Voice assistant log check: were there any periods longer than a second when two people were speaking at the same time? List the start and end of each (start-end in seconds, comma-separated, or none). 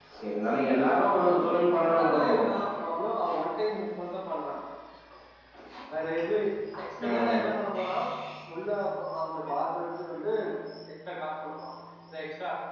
none